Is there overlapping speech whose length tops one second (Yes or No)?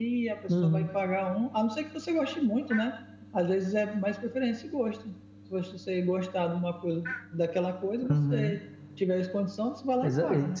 No